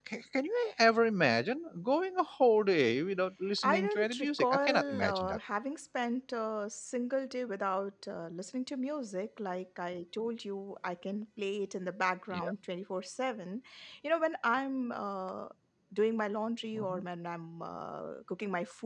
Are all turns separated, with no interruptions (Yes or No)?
No